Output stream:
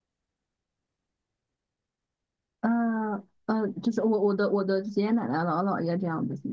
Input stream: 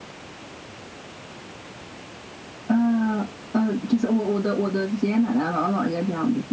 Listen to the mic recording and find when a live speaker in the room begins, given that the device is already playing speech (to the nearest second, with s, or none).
none